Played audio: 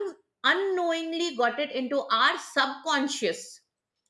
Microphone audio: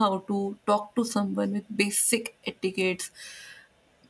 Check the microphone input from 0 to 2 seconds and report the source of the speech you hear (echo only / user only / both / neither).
user only